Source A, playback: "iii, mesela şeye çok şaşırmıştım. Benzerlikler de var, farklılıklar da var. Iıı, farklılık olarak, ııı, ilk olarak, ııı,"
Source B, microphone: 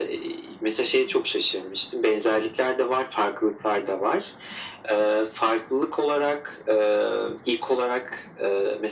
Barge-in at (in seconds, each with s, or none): none